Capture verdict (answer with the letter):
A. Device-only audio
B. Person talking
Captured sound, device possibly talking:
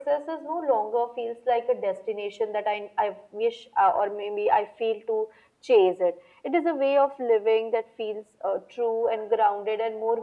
A